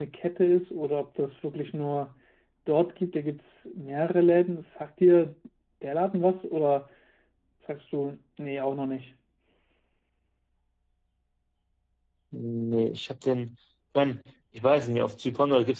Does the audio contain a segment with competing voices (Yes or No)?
No